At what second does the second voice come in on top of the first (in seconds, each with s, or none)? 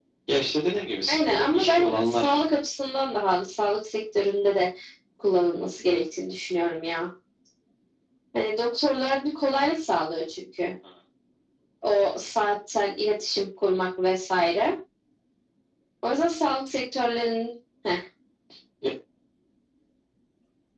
1.1 s